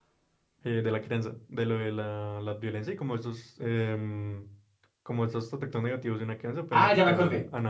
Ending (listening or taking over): taking over